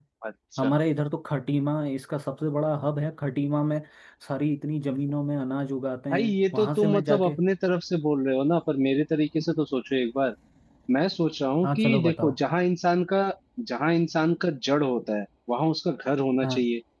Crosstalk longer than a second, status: present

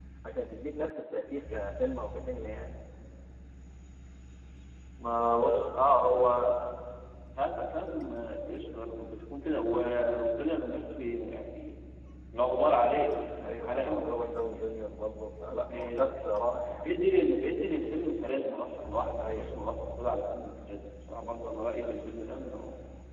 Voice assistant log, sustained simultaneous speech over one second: none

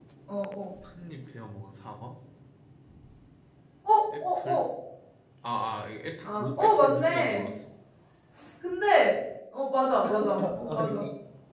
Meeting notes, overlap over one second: present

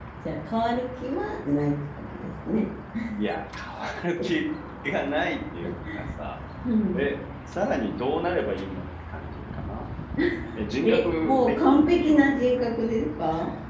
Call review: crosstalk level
present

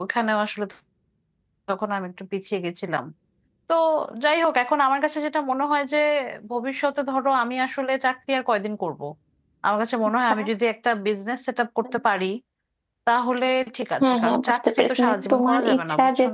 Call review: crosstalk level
present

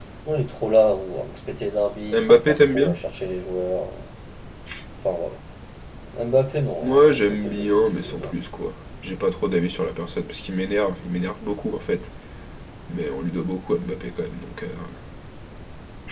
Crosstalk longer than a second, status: present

